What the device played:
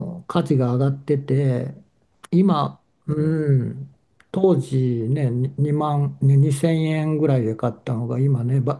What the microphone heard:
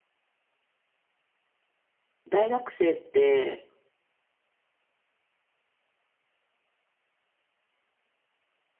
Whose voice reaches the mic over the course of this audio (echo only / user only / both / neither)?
user only